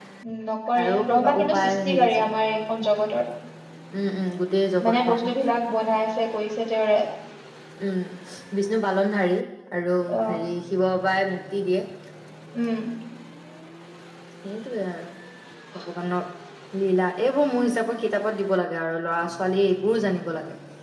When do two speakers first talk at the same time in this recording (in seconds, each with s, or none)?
0.8 s